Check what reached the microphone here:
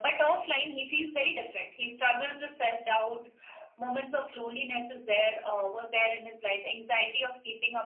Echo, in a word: present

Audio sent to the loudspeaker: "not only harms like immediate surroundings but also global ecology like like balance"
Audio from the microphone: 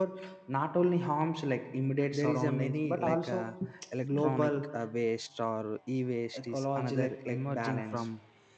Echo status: present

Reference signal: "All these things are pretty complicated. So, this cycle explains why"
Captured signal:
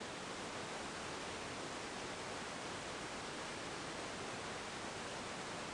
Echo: none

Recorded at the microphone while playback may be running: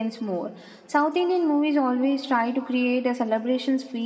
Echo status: present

